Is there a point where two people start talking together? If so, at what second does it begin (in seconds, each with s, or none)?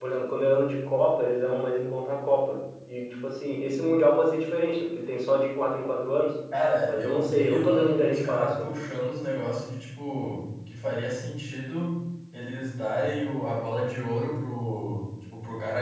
6.9 s